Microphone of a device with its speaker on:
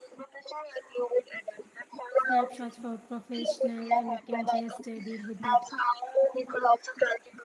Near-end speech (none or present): present